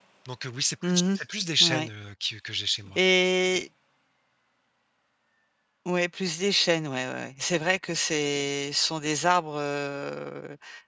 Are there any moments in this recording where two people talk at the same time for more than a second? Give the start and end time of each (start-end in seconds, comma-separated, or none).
none